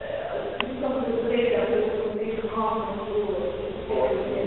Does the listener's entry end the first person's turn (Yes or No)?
Yes